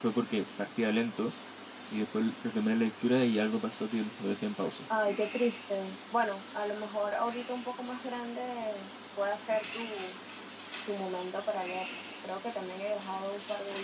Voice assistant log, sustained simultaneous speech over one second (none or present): none